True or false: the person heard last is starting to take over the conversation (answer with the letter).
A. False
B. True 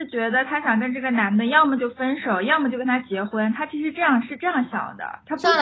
B